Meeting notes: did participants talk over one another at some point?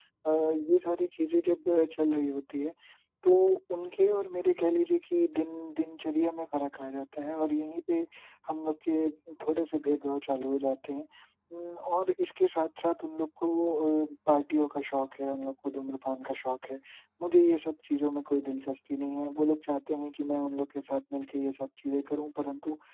No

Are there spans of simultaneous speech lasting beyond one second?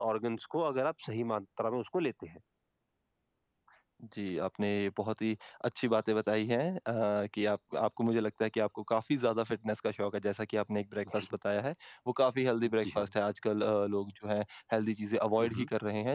No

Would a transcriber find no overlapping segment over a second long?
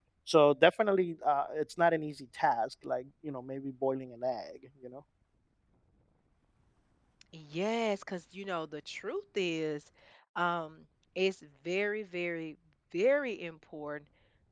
Yes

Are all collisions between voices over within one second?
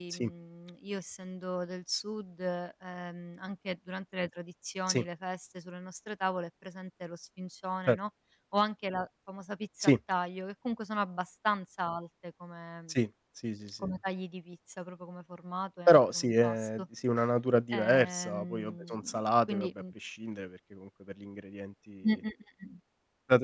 No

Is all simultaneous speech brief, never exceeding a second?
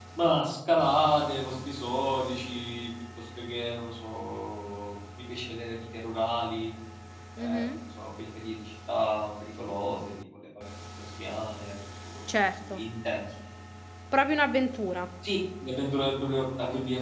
Yes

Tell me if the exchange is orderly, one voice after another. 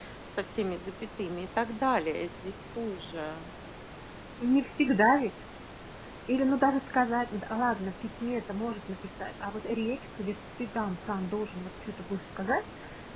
Yes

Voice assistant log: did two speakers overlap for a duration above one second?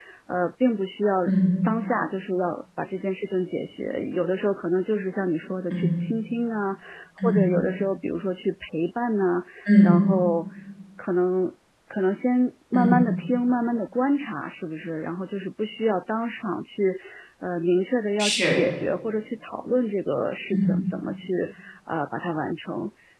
No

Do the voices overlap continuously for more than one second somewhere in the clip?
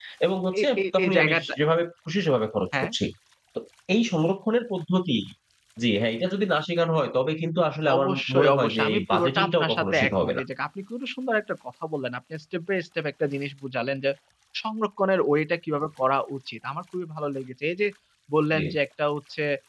Yes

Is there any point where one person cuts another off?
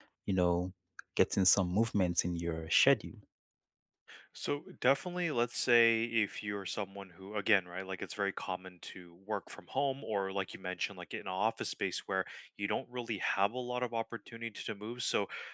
No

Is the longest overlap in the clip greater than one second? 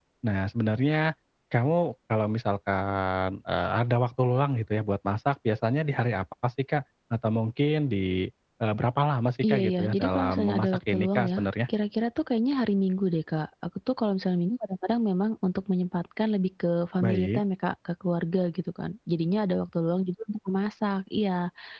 Yes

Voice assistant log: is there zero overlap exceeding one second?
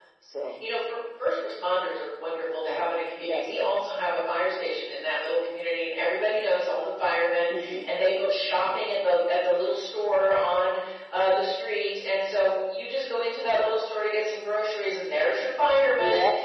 Yes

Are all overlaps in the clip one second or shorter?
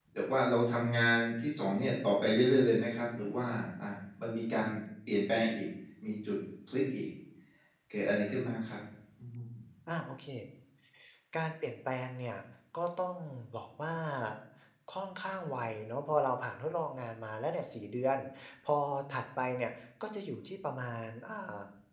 Yes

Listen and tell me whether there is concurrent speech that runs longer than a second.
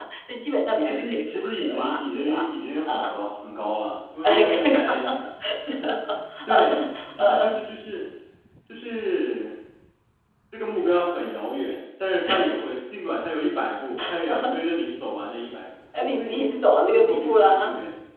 Yes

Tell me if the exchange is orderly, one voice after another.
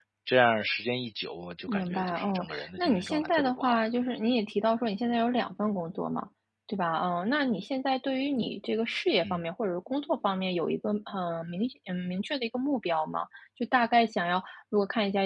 No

